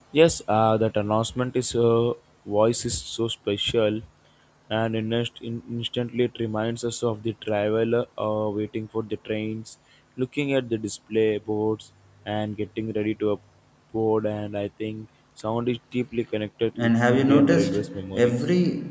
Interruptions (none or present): present